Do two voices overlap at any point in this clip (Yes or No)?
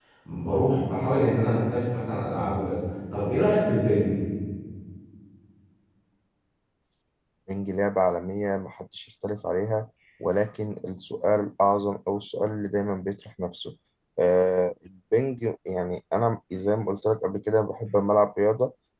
No